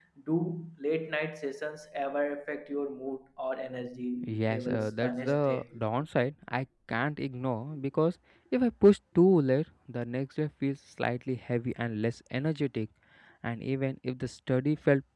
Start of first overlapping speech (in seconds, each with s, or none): 4.2 s